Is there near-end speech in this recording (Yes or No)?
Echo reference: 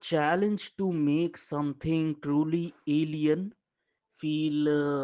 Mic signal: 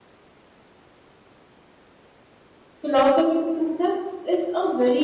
Yes